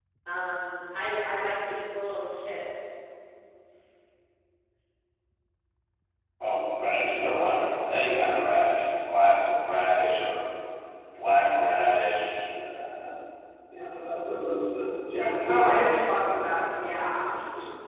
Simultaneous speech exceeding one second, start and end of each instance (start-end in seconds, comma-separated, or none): 15.5-16.7